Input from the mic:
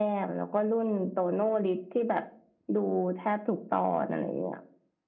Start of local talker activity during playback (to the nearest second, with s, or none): none